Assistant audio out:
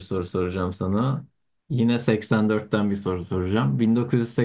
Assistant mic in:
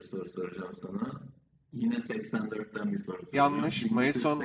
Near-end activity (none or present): present